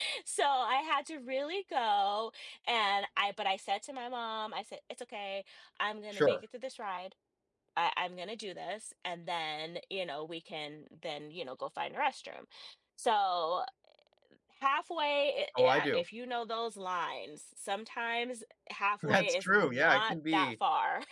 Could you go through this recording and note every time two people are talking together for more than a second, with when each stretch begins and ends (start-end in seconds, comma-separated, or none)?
19.1-20.5